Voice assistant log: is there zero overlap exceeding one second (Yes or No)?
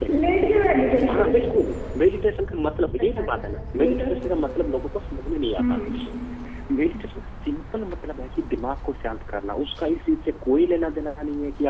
Yes